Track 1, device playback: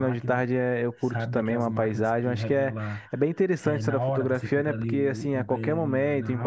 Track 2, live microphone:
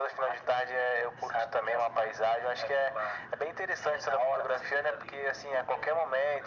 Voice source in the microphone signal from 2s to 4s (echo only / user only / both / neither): echo only